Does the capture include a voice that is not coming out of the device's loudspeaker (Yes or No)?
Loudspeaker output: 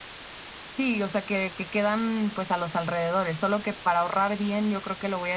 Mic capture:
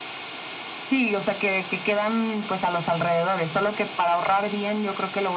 No